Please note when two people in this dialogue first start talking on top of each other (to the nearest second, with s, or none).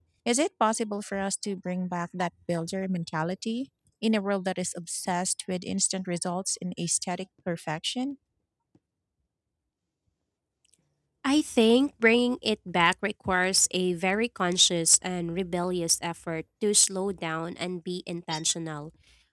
none